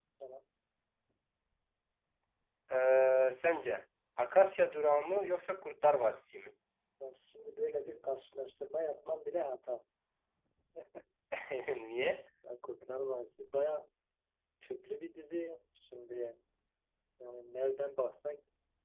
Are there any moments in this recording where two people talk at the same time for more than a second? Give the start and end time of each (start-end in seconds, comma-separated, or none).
none